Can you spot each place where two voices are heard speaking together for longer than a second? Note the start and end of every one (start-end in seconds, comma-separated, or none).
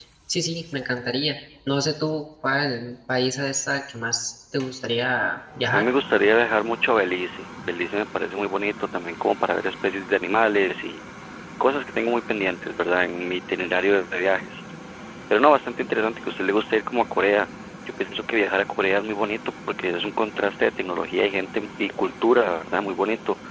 none